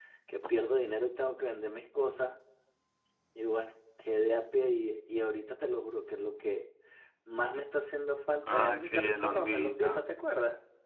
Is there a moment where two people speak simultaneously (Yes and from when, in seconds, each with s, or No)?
Yes, from 8.4 s